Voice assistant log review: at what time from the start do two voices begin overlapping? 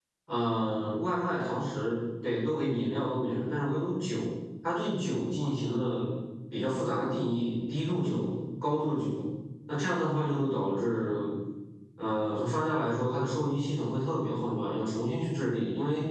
none

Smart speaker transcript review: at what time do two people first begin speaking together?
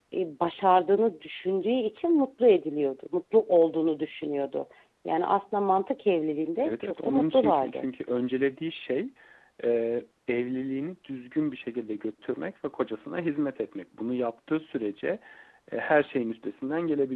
6.5 s

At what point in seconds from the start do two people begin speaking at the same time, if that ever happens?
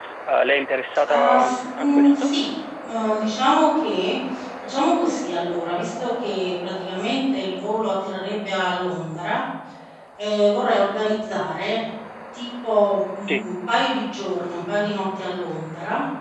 1.1 s

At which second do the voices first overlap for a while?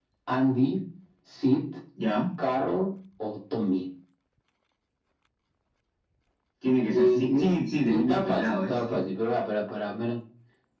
6.9 s

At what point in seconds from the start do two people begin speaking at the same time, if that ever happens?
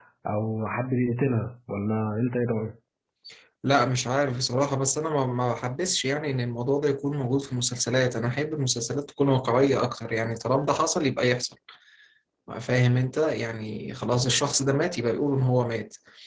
none

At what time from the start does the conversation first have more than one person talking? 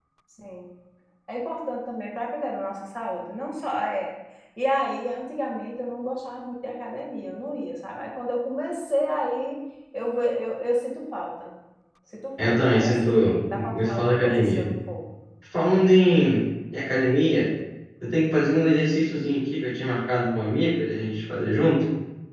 12.4 s

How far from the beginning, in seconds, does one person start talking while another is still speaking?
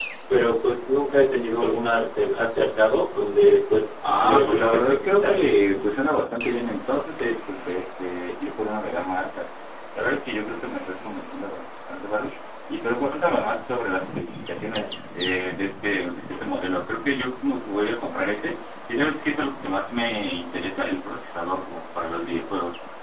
4.0 s

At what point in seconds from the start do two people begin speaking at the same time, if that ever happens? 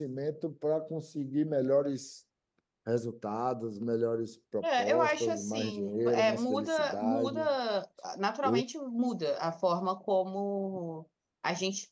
4.6 s

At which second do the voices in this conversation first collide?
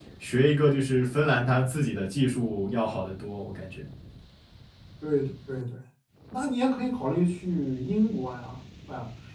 none

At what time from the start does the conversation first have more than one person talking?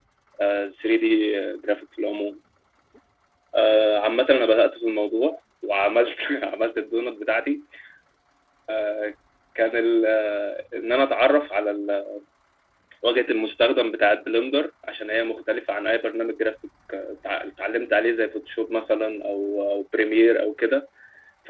none

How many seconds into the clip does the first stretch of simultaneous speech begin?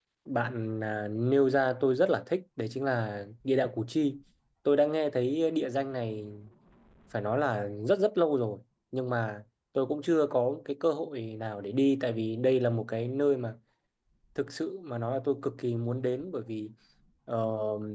none

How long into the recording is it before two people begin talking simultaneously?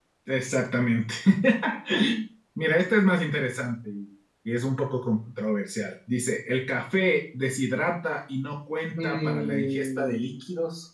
9.0 s

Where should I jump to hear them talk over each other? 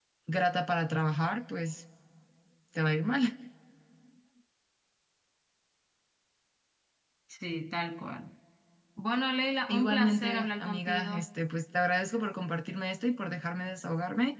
9.7 s

